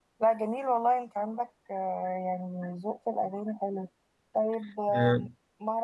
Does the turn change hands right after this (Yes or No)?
No